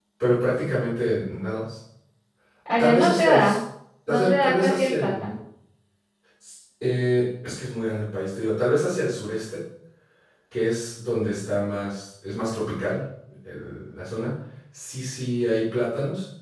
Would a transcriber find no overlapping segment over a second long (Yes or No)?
No